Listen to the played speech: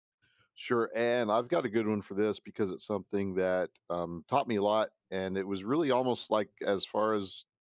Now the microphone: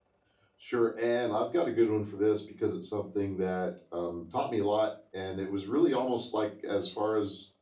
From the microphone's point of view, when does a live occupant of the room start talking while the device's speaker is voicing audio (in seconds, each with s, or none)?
none